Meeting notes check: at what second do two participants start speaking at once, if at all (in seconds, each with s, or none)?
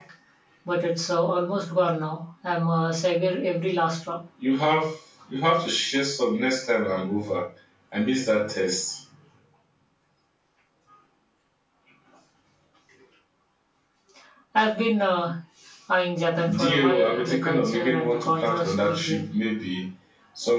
16.6 s